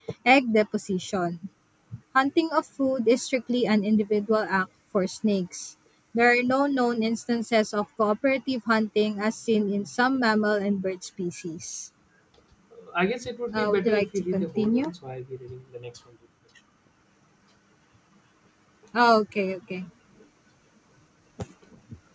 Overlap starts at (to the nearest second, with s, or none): 14 s